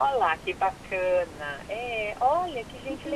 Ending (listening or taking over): taking over